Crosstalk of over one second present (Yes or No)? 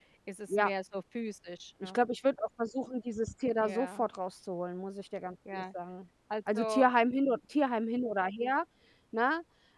No